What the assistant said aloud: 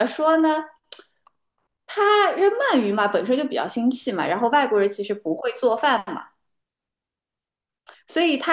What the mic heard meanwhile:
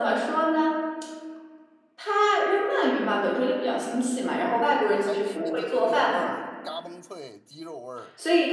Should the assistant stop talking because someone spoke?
Yes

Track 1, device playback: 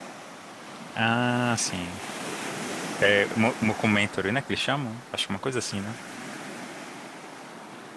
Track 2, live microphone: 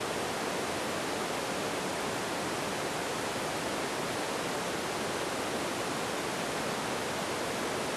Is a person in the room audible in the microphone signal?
No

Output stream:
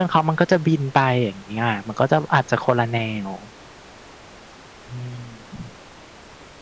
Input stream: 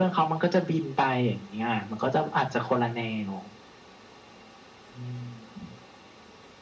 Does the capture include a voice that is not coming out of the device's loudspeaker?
No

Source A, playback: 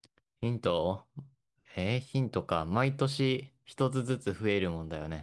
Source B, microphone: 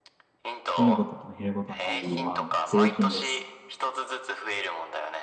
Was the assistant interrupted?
Yes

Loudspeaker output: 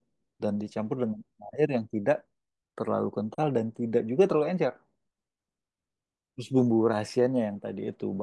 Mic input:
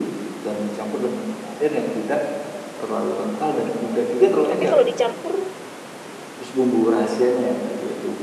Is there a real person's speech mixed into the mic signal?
Yes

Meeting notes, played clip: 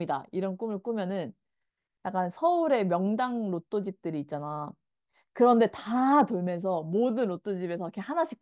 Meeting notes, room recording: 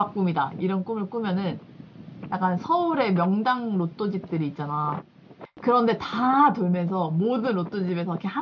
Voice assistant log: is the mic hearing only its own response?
Yes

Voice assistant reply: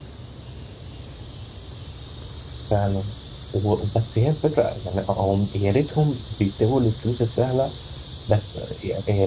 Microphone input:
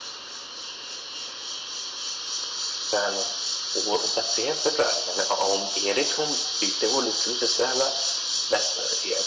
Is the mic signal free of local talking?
Yes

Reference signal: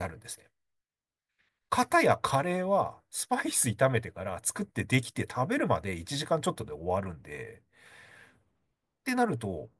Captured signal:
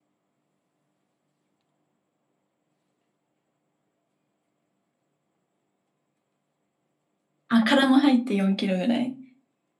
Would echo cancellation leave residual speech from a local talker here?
Yes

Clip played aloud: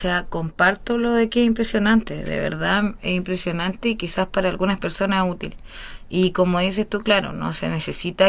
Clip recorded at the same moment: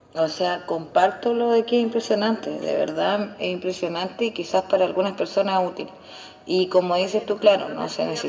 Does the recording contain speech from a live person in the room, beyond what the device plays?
Yes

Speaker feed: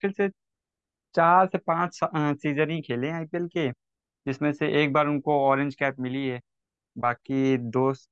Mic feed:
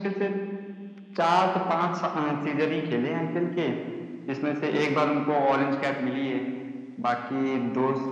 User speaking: No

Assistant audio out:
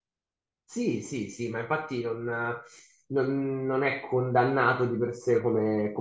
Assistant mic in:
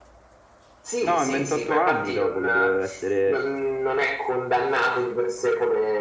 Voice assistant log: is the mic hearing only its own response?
No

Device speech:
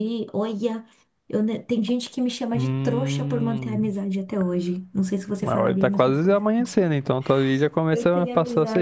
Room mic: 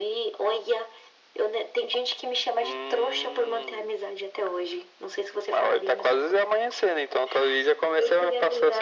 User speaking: No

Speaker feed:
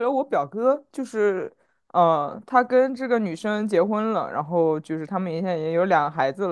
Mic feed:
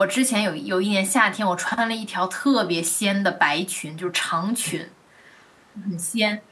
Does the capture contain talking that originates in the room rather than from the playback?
Yes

